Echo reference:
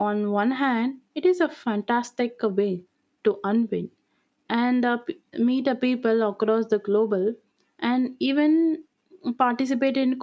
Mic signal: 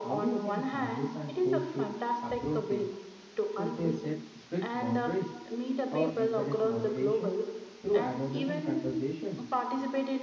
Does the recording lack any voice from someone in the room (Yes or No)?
No